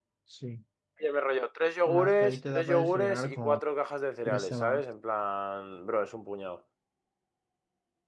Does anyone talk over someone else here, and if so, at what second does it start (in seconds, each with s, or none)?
1.9 s